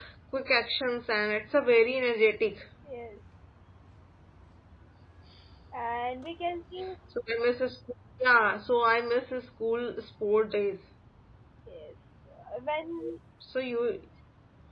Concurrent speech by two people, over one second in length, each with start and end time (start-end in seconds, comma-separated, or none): none